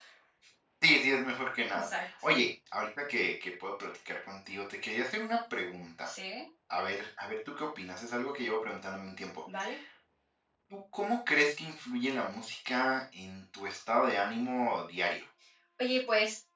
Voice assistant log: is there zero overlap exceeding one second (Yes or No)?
Yes